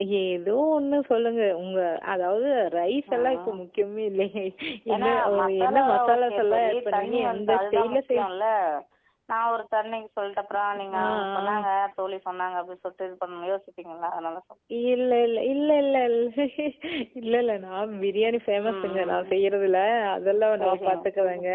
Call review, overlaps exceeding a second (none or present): present